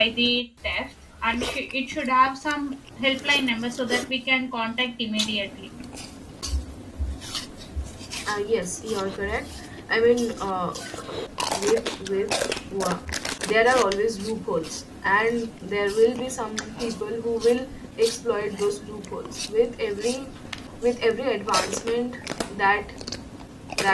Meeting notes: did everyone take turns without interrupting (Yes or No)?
Yes